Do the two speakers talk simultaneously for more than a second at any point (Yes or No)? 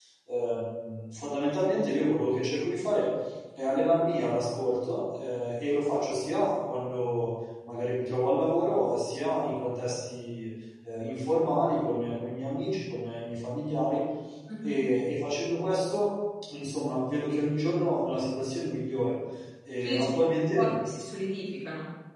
No